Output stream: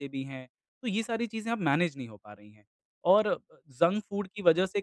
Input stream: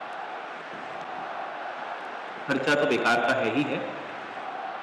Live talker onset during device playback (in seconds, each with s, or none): 2.5 s